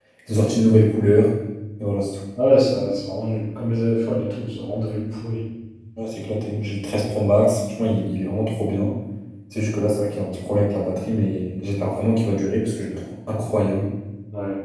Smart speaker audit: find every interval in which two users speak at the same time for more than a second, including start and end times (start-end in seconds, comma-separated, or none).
none